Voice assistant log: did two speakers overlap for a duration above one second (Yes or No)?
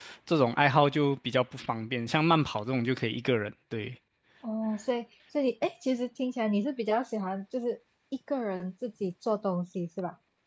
No